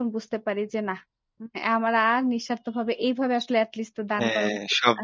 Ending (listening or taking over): taking over